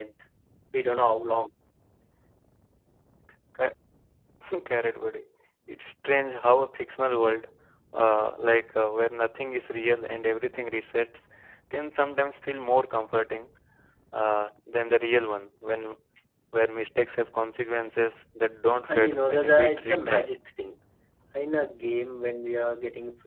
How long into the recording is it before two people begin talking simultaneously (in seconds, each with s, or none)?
18.9 s